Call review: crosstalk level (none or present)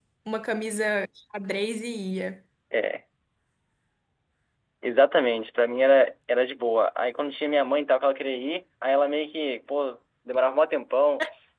none